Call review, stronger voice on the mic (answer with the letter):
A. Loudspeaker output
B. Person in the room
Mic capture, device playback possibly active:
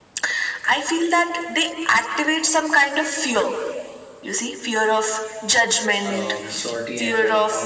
A